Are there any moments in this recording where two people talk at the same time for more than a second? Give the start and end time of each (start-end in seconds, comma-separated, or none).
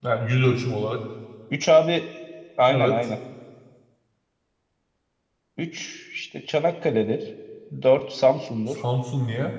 none